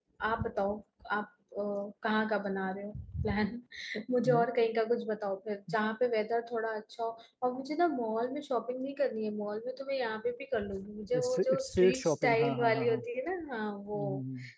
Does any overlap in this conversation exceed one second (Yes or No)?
Yes